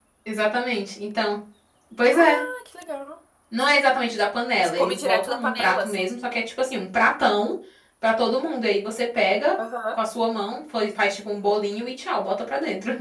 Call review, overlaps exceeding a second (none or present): present